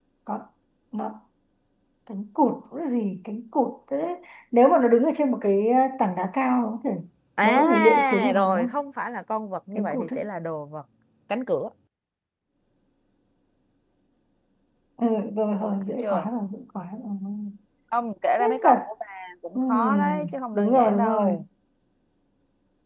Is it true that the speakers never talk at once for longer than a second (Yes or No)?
No